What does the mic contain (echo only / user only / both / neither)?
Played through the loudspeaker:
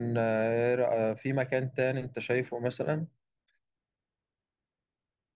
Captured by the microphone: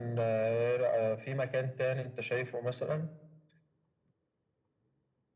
echo only